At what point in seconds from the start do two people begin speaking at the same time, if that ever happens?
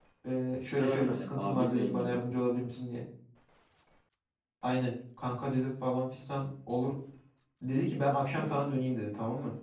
0.8 s

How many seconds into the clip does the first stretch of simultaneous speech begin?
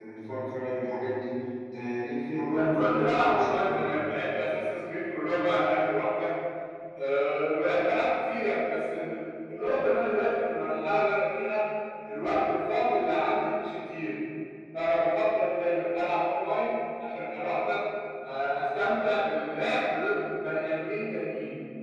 2.5 s

